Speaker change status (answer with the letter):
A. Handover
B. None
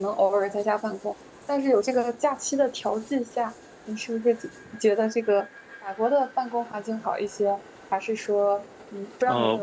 A